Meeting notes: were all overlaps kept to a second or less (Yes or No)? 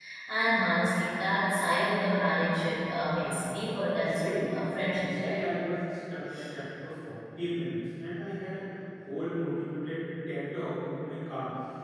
No